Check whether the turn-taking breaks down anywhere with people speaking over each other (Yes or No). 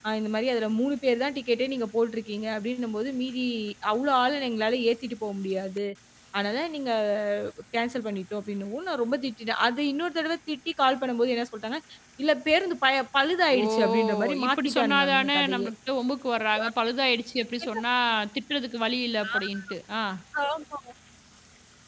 Yes